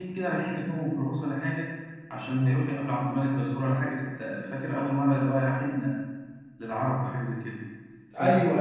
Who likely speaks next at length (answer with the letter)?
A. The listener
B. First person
B